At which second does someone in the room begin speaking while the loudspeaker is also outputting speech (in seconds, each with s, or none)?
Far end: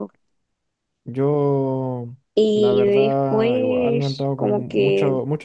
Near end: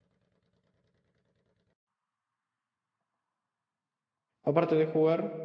4.4 s